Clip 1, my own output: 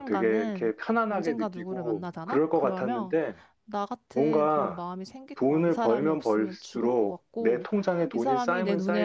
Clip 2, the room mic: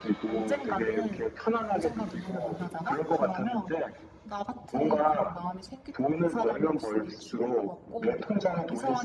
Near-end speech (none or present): none